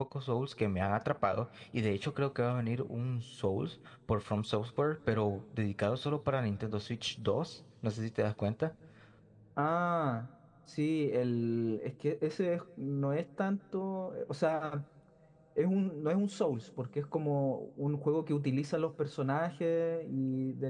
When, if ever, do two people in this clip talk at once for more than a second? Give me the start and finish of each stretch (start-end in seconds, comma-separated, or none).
none